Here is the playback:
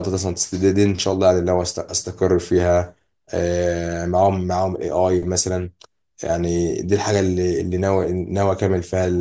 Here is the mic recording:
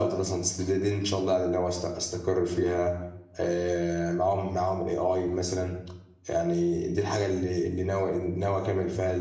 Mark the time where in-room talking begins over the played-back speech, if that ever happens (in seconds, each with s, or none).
none